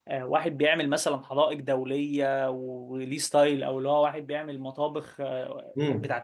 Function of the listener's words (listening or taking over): taking over